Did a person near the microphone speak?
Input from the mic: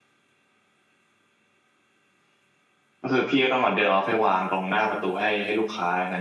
Yes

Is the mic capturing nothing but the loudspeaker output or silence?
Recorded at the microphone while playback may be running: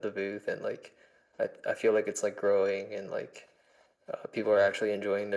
Yes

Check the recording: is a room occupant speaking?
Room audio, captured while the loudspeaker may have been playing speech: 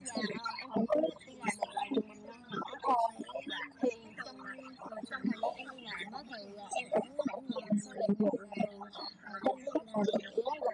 No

